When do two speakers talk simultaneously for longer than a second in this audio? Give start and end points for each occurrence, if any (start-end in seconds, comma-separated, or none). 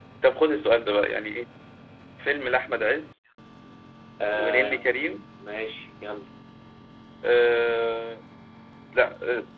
none